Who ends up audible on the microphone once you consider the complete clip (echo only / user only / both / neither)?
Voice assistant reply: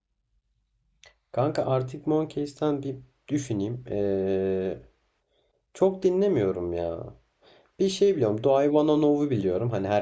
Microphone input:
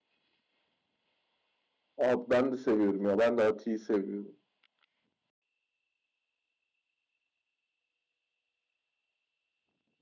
user only